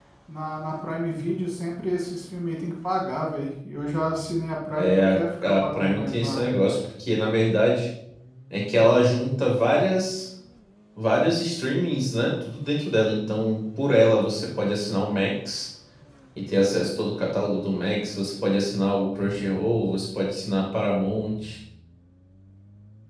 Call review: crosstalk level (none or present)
present